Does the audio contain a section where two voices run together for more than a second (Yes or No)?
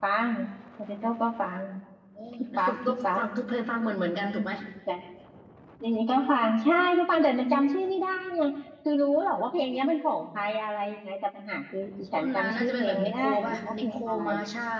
Yes